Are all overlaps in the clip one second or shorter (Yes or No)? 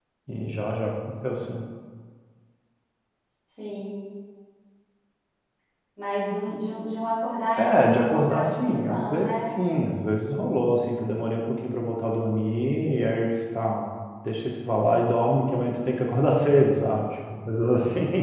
No